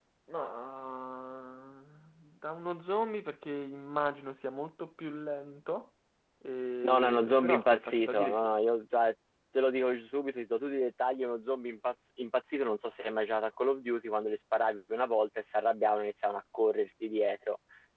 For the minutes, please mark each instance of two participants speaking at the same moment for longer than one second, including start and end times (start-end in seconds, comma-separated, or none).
6.8-8.6